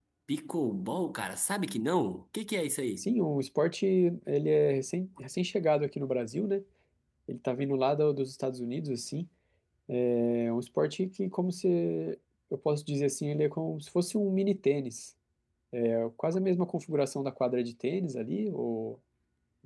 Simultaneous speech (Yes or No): No